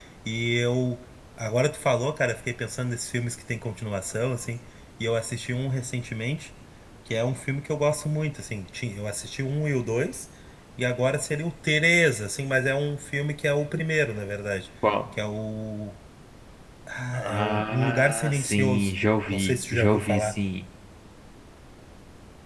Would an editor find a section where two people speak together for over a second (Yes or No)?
Yes